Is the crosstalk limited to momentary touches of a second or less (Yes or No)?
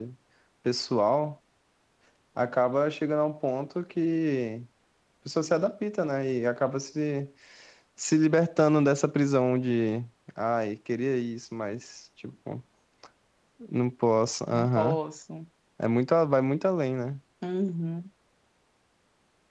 Yes